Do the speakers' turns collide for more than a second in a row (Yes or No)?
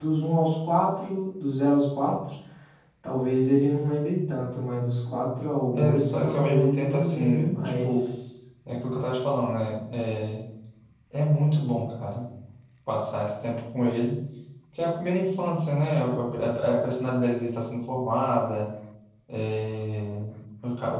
Yes